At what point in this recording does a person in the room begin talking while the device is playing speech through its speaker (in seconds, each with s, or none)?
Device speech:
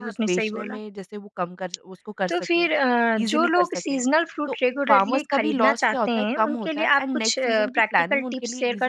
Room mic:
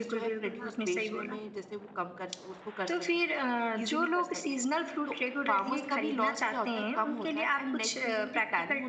none